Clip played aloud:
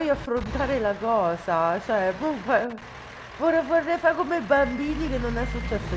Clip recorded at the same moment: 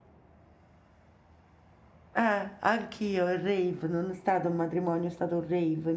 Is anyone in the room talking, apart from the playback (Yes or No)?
Yes